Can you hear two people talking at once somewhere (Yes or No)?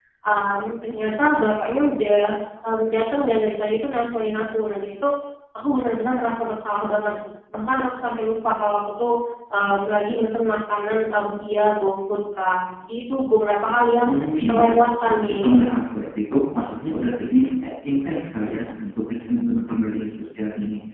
Yes